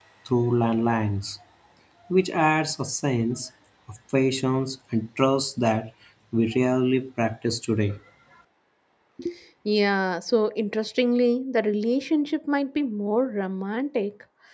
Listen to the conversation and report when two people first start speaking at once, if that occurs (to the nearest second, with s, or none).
none